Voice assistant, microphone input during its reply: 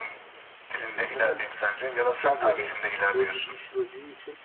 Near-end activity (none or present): present